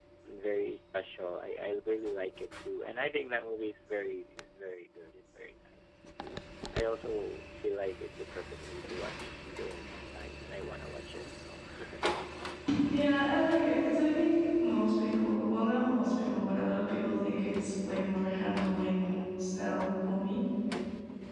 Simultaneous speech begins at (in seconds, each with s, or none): none